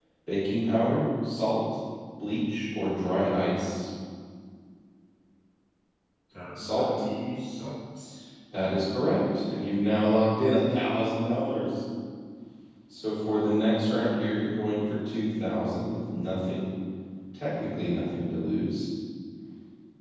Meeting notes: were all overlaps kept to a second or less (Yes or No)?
Yes